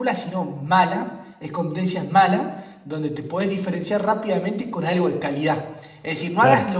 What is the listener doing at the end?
listening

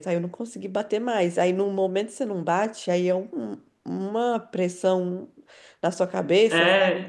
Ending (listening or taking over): taking over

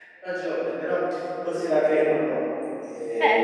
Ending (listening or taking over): taking over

